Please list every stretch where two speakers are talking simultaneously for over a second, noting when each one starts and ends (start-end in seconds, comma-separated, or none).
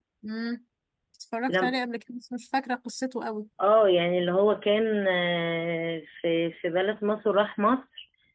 none